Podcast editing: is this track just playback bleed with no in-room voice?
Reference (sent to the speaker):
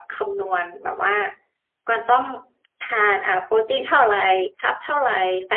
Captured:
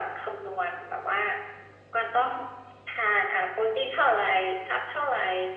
Yes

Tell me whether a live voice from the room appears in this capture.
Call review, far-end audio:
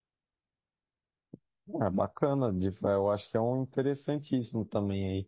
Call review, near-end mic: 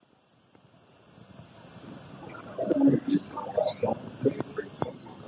No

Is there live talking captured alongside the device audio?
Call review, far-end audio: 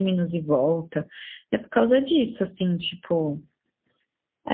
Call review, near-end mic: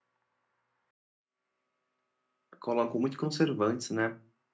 Yes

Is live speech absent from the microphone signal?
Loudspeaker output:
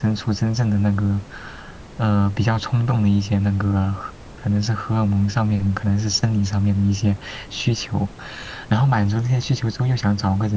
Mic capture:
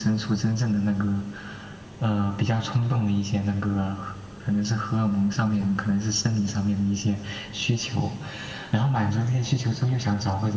Yes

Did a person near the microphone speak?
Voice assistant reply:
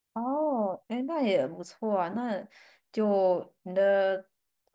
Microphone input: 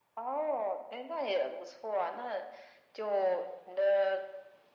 No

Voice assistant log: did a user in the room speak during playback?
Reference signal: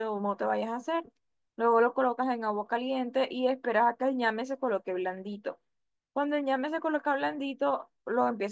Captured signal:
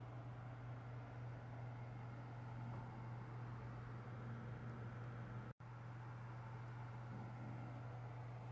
No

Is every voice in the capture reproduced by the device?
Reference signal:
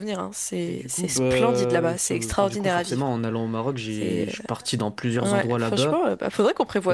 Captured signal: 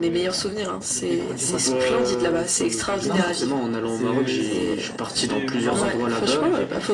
No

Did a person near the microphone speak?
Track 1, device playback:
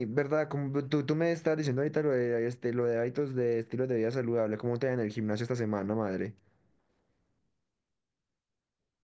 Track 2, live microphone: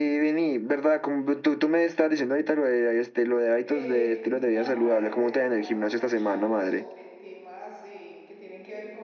Yes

